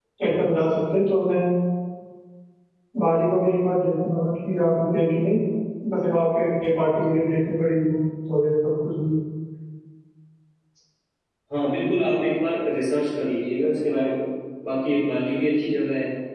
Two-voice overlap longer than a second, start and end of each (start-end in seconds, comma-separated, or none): none